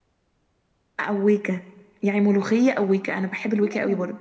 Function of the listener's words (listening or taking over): taking over